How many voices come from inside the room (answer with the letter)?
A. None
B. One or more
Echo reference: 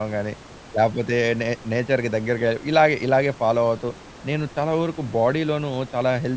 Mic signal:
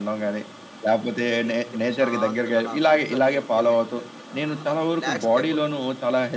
B